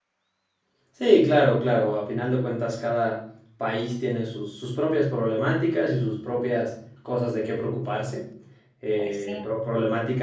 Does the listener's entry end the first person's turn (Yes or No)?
No